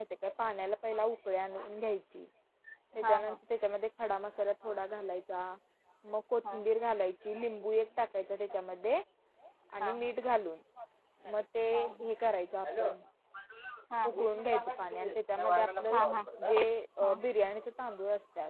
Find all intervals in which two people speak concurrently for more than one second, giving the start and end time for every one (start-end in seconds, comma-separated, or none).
14.2-16.0